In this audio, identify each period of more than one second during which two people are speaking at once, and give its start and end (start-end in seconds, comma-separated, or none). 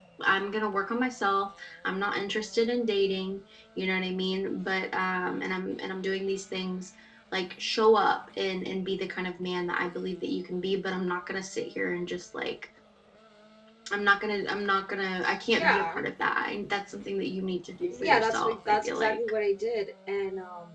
18.0-19.2